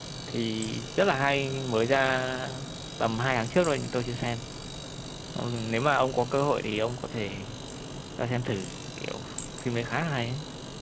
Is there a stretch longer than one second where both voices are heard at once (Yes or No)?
No